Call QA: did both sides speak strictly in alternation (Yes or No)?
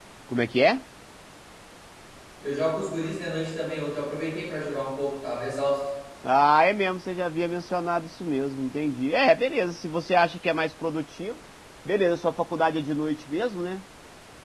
Yes